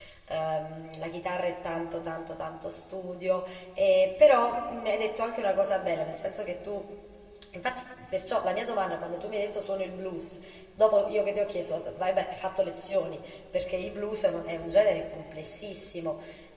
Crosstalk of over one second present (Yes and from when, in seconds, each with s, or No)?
No